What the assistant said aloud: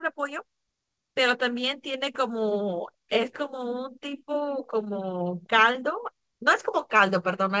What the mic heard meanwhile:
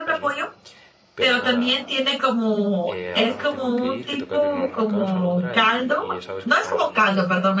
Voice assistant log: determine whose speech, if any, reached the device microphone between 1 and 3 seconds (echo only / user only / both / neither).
both